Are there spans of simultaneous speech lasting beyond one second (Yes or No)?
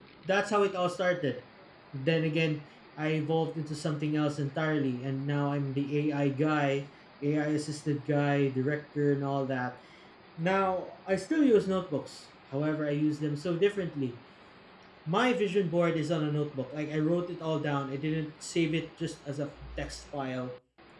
No